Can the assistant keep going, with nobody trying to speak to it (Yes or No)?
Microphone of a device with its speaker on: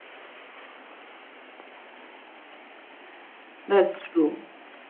No